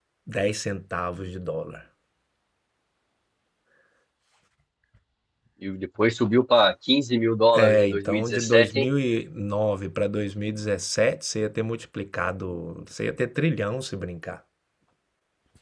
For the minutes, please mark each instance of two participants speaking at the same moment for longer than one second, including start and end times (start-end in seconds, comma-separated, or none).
7.5-8.9